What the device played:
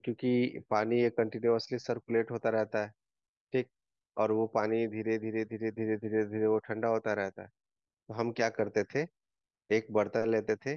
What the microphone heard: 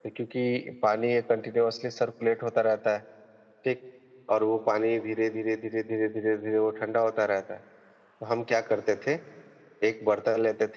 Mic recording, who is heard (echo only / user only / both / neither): echo only